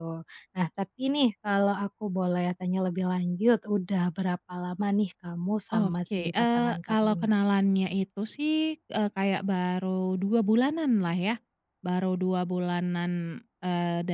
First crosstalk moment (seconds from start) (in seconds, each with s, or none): 5.7 s